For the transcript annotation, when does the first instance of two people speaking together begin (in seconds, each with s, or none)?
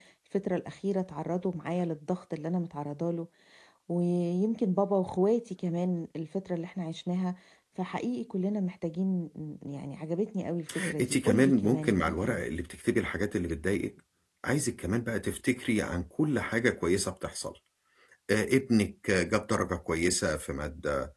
11.0 s